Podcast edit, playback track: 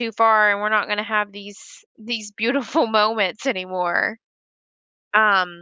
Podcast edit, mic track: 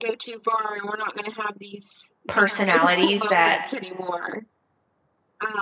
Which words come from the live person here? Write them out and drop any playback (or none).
personalities that